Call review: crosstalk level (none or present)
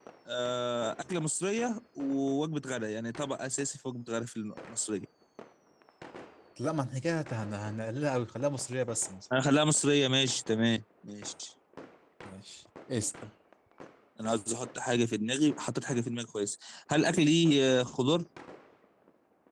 none